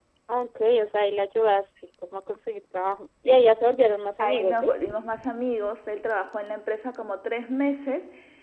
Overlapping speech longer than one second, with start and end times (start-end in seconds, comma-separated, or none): none